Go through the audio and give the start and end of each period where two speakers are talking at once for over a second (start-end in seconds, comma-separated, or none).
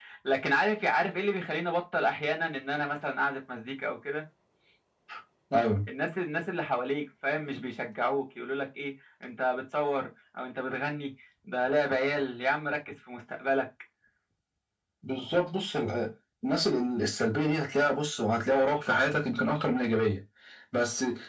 none